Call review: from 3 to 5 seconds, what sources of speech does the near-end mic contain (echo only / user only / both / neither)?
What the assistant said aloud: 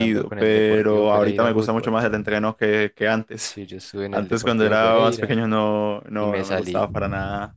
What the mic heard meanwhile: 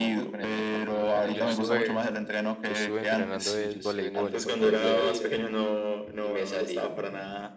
both